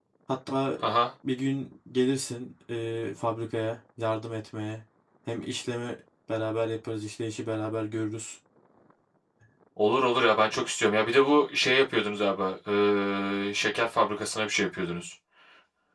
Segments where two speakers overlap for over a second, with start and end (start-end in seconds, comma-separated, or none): none